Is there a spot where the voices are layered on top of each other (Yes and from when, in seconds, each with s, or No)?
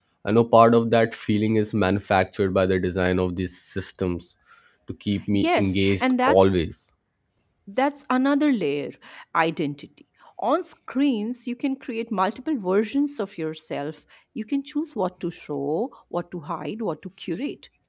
Yes, from 5.3 s